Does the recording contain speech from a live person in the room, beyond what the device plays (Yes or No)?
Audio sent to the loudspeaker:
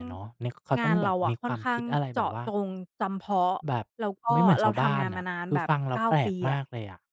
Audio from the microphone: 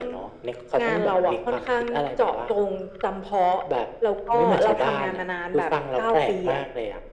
No